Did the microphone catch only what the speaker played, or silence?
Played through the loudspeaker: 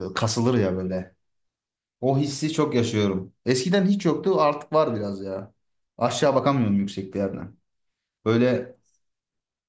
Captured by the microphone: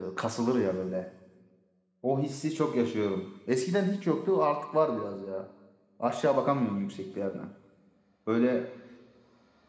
Yes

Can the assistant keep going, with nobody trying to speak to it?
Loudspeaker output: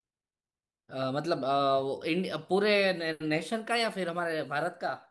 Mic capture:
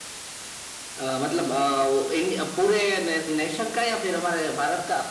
Yes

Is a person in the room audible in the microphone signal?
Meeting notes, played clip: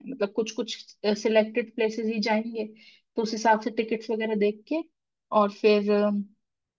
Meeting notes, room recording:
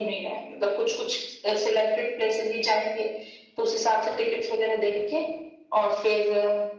No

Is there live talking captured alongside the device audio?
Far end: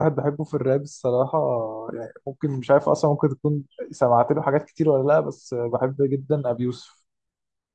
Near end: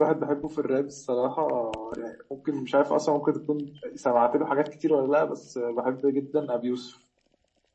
No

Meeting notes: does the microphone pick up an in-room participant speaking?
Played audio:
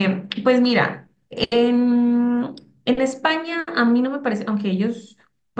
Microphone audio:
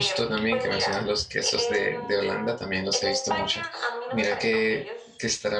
Yes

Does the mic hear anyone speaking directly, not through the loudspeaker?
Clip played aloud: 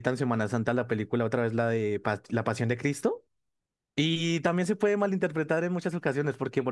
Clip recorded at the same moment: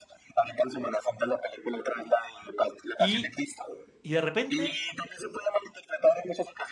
Yes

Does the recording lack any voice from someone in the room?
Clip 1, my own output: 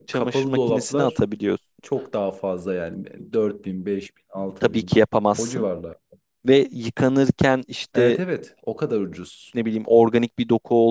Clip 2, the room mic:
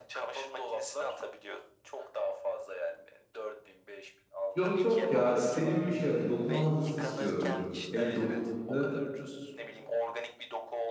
No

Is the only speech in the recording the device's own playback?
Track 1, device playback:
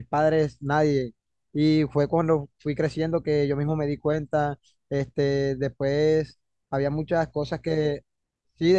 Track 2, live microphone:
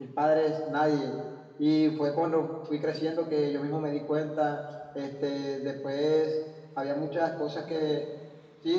Yes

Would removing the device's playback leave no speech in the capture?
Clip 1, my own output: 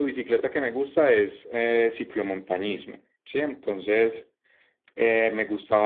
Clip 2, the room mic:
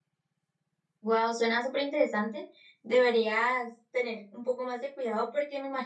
No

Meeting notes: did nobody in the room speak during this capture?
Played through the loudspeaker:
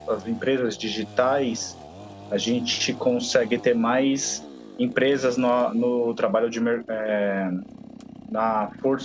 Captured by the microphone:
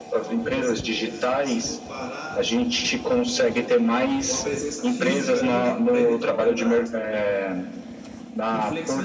No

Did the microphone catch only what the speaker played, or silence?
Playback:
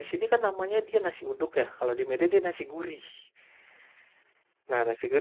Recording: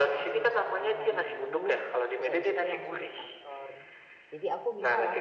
No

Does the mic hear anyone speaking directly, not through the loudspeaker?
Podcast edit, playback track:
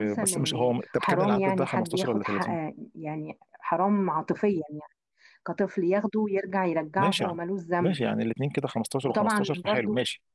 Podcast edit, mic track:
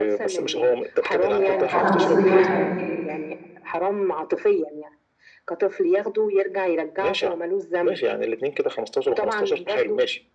Yes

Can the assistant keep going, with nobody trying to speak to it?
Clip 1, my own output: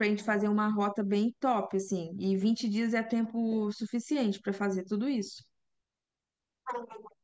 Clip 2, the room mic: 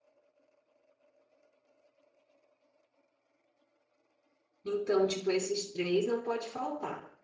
No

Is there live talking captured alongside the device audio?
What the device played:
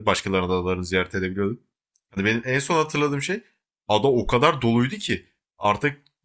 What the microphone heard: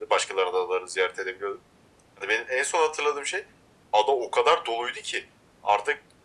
No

